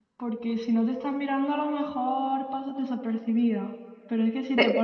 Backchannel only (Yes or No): Yes